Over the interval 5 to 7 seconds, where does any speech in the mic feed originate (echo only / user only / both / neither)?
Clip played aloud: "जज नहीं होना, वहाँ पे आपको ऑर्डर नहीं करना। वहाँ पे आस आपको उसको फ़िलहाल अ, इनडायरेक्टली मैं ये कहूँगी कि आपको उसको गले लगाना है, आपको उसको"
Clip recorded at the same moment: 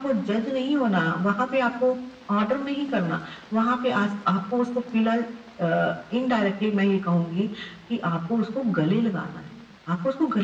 echo only